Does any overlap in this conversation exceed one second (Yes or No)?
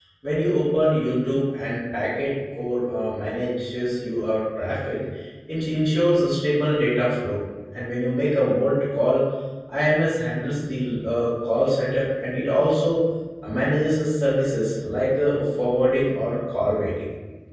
No